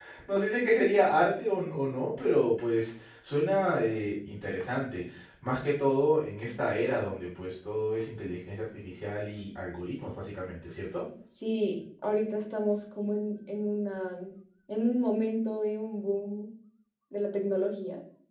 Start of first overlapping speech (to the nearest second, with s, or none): none